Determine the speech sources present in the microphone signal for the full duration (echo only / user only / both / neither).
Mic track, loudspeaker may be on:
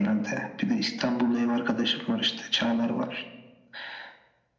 echo only